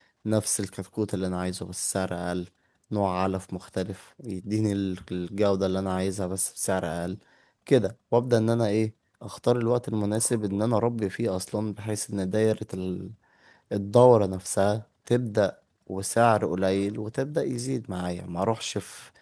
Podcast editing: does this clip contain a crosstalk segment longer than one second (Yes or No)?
No